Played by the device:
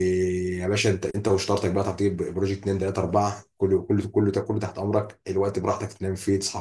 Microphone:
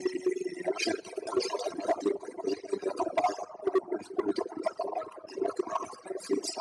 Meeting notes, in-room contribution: none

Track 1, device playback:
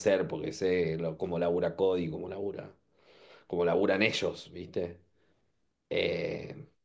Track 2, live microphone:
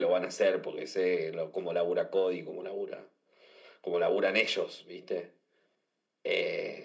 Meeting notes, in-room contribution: none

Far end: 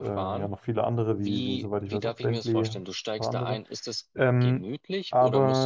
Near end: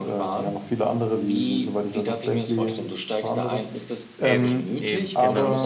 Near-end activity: present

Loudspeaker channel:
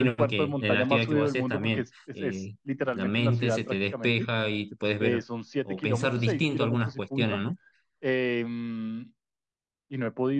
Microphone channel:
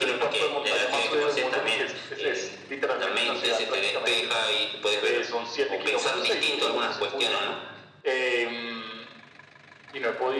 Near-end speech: none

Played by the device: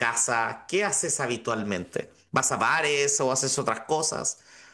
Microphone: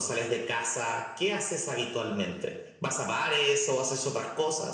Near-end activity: none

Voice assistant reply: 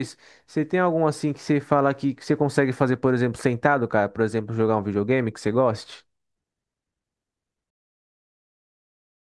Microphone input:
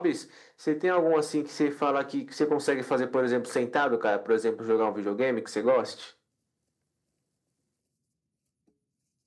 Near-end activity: none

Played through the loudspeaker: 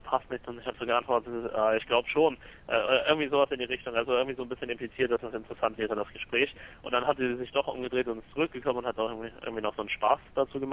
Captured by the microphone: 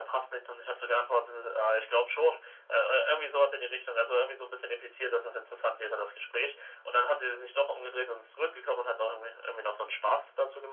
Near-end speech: none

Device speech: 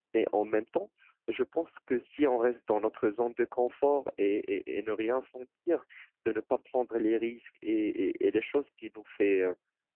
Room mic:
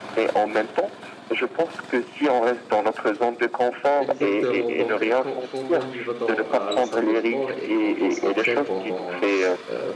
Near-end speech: present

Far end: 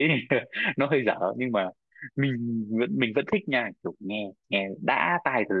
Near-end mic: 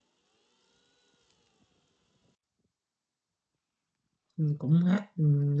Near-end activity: present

